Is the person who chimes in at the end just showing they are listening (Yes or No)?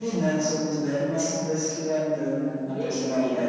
No